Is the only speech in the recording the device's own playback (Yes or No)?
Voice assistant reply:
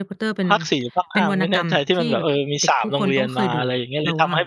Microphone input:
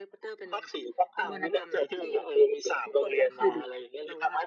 Yes